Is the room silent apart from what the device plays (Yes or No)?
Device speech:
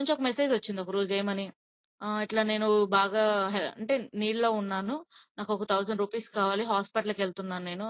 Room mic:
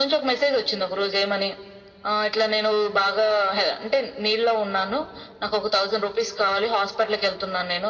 Yes